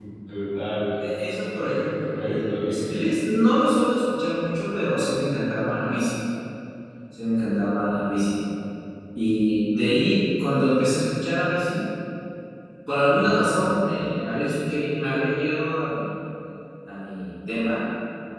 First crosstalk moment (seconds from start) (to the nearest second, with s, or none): 2 s